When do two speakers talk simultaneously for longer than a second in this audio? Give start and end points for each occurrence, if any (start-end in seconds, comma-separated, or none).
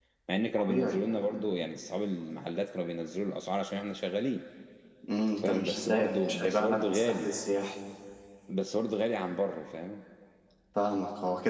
5.4-7.3